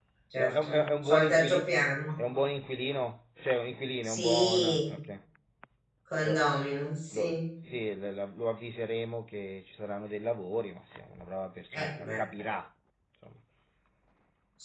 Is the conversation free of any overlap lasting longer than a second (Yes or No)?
No